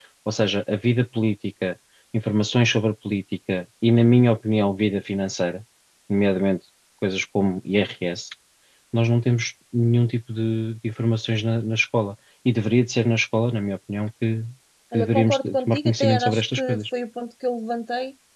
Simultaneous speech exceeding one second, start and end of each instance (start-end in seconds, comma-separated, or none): 14.9-16.8